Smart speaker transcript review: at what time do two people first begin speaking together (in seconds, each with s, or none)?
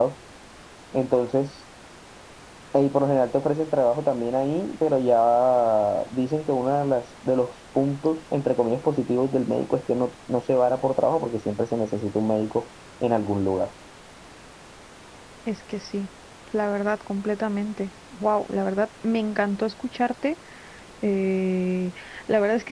none